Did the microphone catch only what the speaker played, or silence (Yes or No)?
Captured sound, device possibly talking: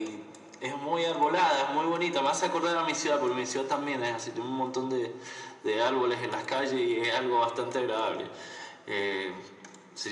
Yes